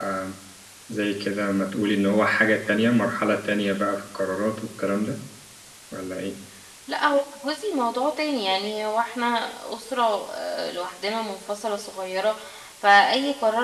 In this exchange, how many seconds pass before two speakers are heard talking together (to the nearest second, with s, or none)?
none